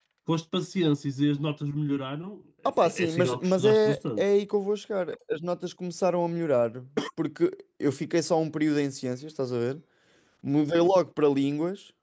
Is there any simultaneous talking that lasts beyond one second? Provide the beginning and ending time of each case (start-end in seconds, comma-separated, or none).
2.8-4.2